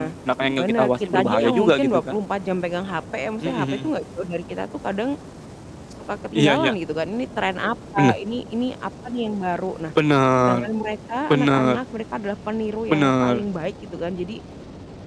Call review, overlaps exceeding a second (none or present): present